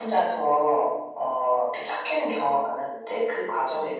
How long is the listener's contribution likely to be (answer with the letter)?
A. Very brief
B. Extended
A